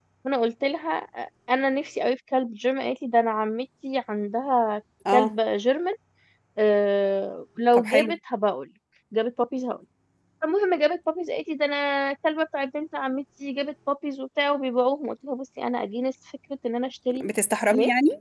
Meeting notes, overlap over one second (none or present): none